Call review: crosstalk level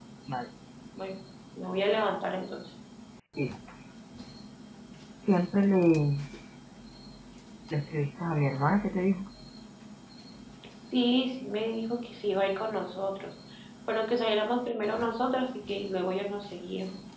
none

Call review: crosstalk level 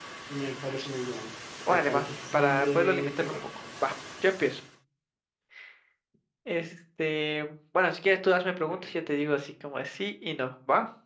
present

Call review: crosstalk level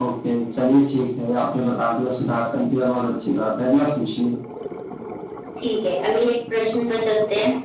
none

